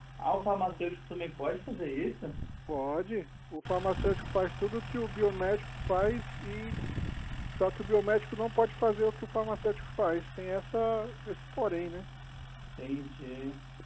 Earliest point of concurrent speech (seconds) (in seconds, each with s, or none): none